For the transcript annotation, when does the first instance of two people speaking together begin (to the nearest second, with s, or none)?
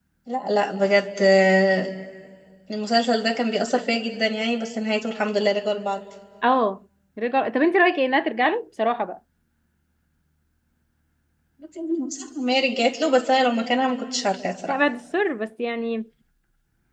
none